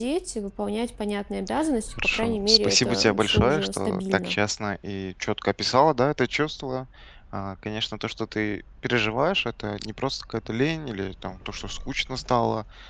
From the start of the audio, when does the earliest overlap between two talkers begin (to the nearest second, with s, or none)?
2 s